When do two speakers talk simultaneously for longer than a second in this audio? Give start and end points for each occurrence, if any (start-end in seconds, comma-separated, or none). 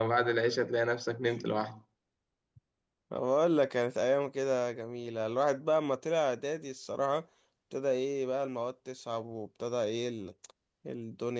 none